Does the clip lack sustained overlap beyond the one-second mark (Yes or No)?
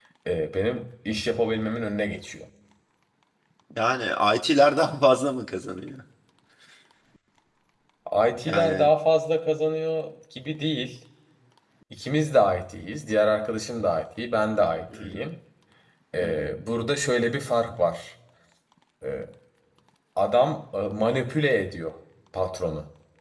Yes